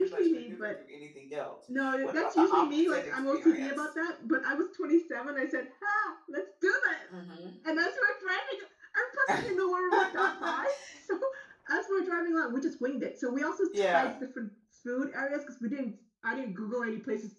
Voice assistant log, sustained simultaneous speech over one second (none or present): present